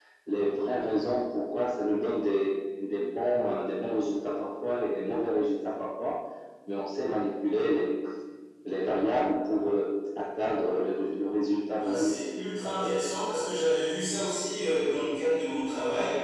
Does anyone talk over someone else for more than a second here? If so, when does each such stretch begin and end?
none

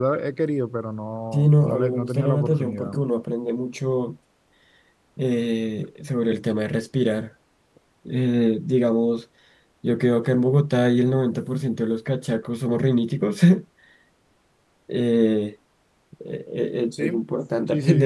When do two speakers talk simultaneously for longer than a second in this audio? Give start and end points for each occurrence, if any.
1.3-2.9

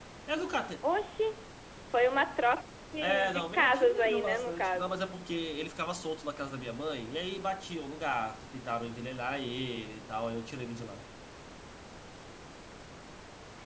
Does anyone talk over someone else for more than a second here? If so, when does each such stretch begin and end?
3.0-5.0

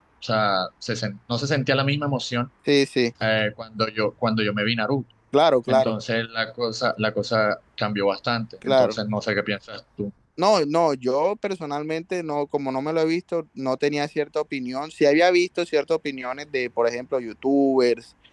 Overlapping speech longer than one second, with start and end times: none

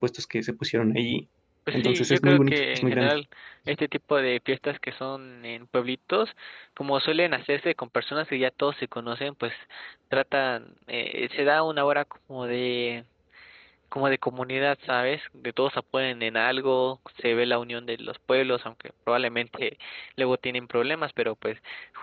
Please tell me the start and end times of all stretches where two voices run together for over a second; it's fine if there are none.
1.7-3.1

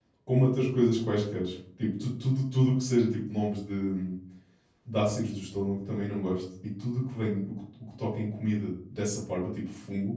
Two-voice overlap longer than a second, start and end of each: none

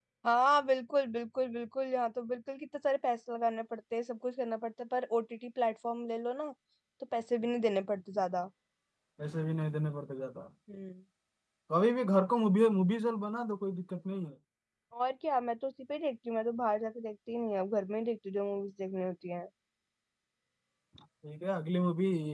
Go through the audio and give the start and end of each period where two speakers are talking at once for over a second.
none

